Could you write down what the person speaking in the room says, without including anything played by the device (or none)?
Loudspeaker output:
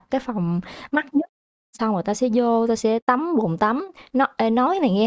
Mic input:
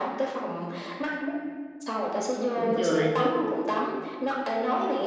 cũng chừa lại chút